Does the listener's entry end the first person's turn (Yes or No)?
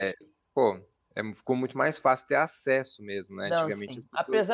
Yes